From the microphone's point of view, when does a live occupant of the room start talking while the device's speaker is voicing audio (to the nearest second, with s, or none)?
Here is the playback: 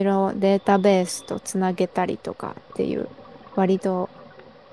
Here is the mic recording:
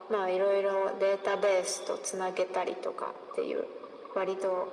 none